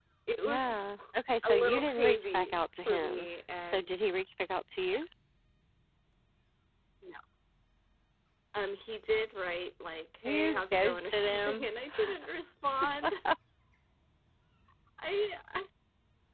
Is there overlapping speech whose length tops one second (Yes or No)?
Yes